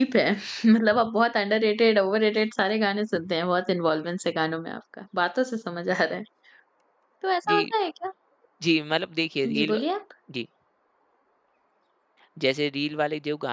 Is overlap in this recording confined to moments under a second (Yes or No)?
Yes